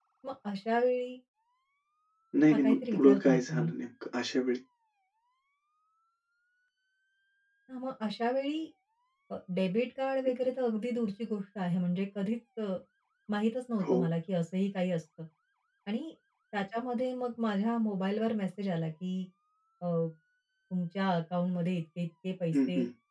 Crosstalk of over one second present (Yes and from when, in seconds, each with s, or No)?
Yes, from 2.5 s